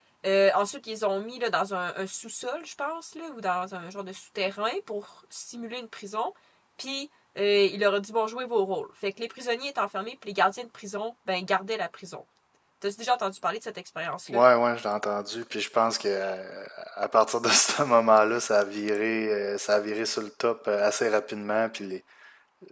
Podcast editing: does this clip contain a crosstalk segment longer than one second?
No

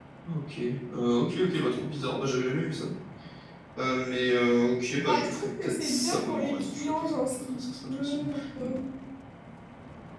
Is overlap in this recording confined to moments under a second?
No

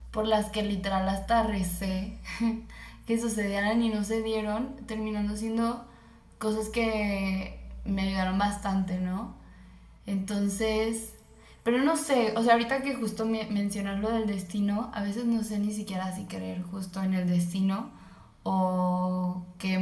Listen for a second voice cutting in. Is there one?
No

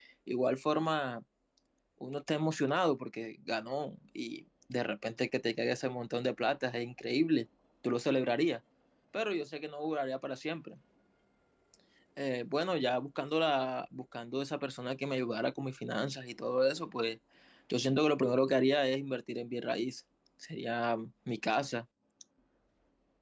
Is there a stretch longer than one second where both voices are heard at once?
No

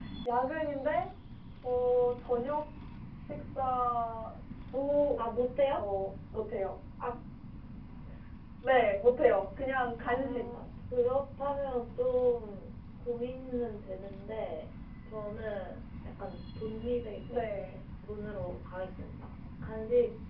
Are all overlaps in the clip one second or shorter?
Yes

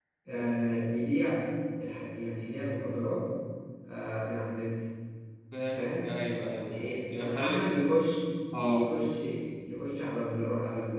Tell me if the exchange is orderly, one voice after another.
No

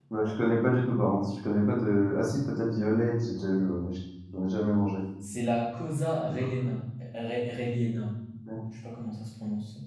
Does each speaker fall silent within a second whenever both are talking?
Yes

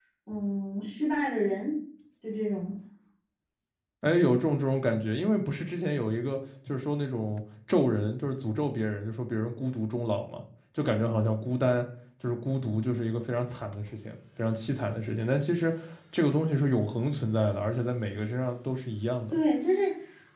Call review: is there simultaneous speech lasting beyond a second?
No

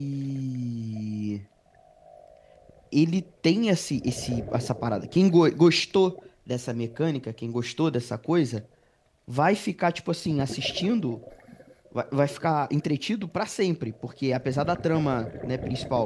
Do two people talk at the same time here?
No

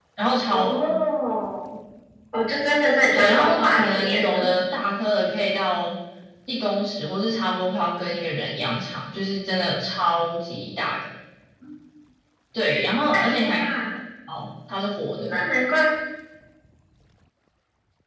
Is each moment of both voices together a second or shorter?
No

